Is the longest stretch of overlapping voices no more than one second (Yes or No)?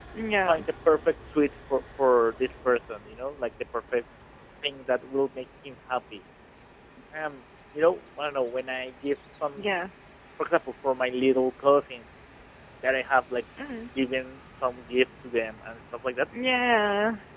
Yes